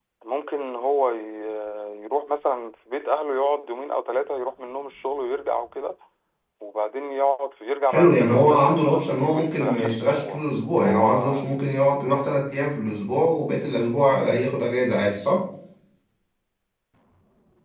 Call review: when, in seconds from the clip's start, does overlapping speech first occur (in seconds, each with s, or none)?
7.9 s